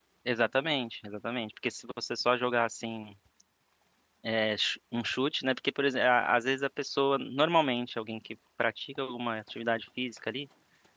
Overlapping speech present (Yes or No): No